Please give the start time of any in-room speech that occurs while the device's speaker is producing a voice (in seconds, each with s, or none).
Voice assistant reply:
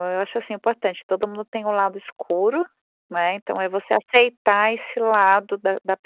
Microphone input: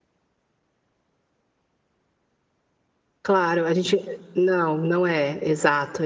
3.2 s